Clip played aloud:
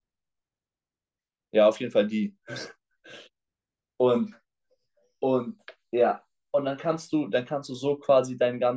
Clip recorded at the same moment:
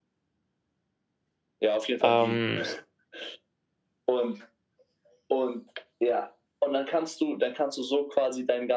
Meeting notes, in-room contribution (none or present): present